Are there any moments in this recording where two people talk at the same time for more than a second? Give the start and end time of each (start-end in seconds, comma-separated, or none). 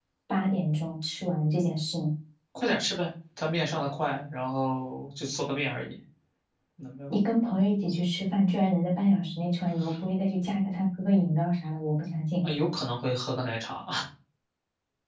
none